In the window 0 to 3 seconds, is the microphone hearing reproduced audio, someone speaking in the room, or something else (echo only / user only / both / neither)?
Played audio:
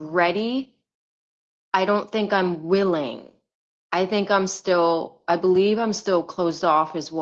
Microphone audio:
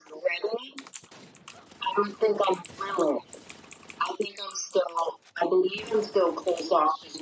echo only